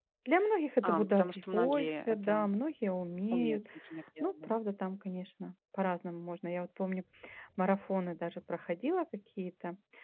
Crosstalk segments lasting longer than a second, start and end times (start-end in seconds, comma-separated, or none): 0.8-2.5